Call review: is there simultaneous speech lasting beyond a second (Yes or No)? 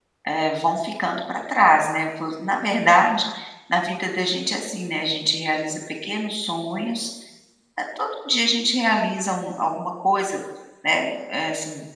No